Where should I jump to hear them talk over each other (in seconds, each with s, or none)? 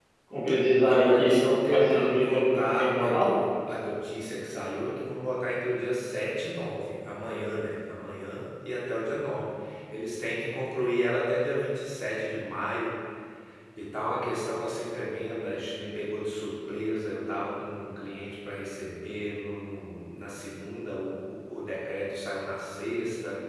0.8 s